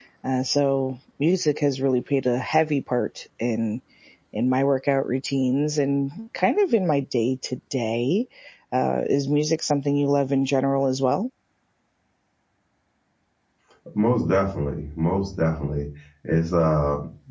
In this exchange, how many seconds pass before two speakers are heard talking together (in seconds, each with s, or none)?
none